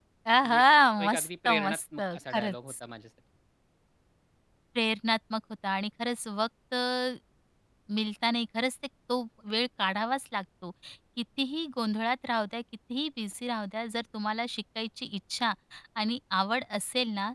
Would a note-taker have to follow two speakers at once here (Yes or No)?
Yes